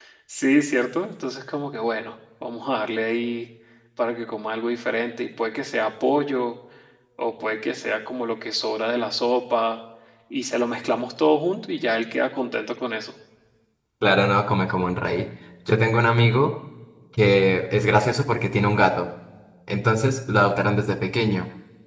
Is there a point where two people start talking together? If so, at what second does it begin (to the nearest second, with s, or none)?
none